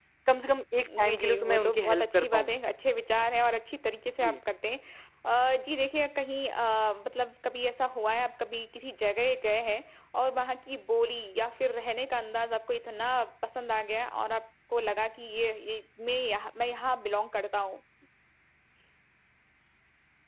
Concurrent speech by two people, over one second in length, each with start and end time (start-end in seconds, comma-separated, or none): 1.0-2.5